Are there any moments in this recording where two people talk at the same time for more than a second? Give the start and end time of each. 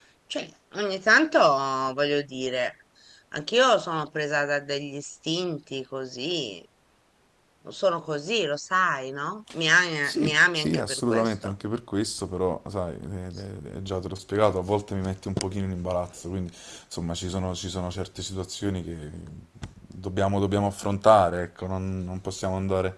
10.0-11.5

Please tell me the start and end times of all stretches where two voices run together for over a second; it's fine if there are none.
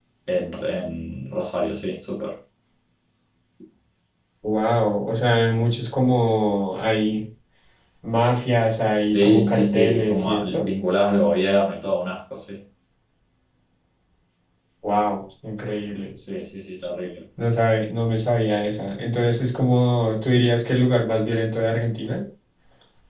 9.1-10.7

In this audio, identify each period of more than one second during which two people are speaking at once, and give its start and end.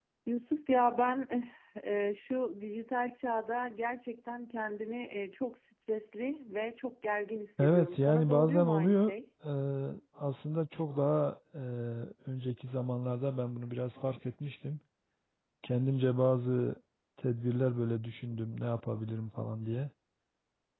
7.6-9.1

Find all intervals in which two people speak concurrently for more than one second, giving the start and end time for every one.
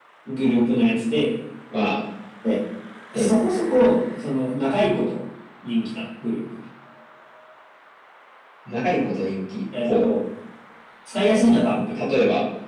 none

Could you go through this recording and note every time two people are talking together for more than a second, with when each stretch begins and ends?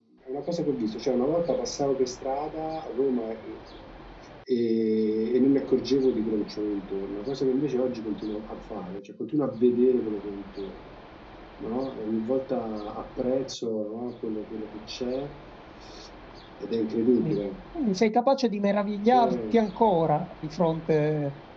none

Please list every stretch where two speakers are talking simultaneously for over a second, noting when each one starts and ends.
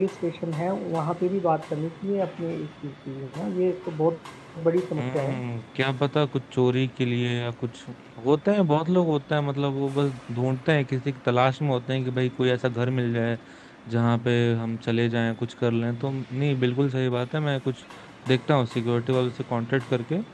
none

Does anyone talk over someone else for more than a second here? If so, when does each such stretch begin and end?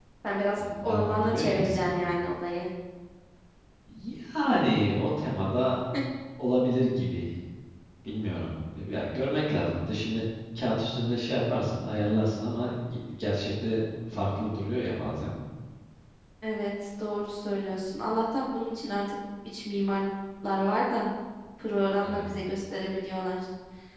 0.5-2.0

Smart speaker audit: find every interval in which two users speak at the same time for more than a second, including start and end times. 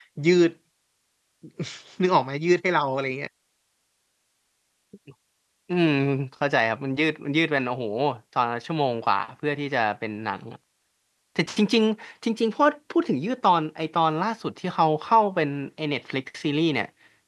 none

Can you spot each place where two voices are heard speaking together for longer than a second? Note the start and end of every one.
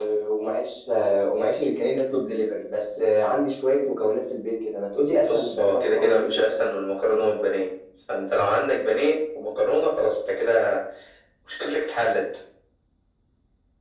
5.3-6.6

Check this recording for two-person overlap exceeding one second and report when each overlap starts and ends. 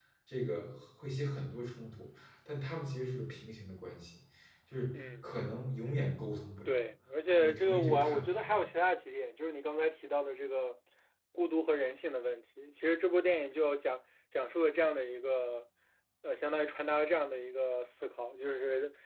7.4-8.6

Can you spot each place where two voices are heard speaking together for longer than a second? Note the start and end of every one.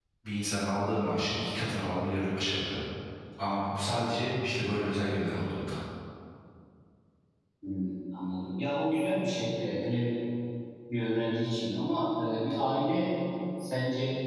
none

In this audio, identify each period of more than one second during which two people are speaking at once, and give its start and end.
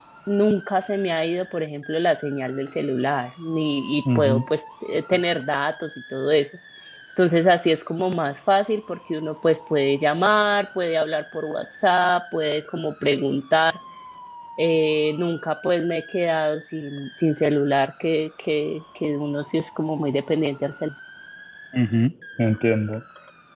none

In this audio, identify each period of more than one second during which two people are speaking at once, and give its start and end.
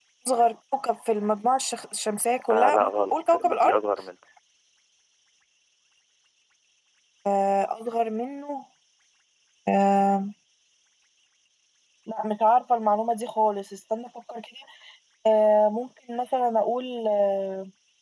2.5-3.8

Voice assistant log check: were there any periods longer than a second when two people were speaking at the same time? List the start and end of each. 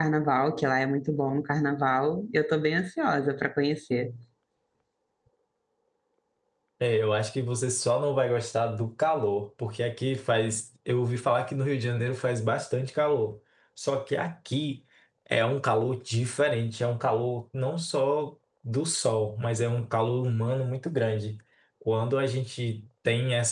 none

